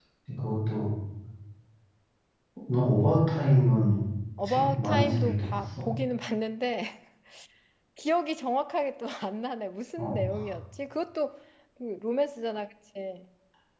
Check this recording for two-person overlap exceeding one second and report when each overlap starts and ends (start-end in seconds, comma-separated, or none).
4.5-5.8